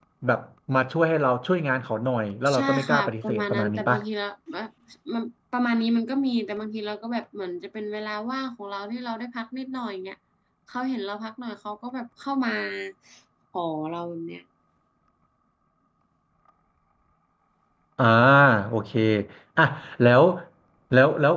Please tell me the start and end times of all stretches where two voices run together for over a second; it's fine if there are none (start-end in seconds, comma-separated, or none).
2.5-4.0